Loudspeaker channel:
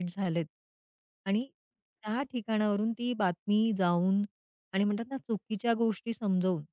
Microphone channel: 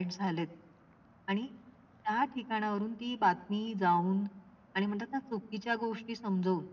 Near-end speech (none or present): none